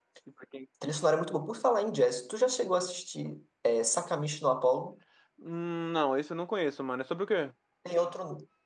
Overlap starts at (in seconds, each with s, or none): none